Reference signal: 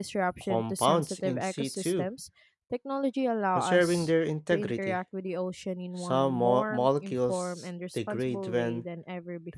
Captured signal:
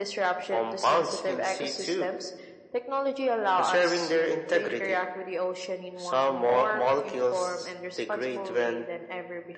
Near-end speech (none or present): none